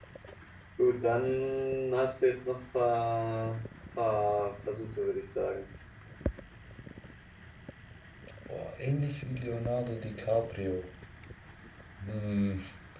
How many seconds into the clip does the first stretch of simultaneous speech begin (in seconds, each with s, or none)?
none